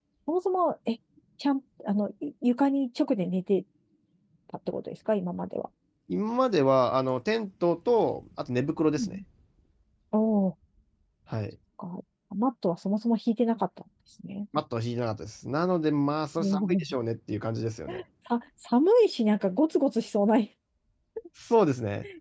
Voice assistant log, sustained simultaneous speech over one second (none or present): none